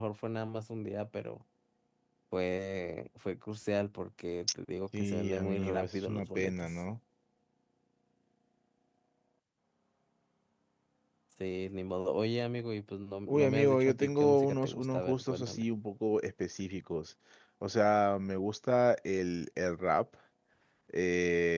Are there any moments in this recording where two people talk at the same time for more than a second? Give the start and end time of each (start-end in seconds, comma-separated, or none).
5.0-6.8, 13.3-15.6